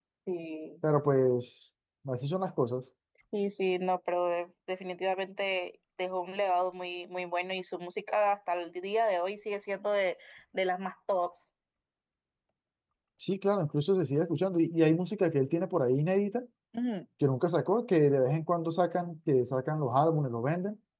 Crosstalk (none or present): none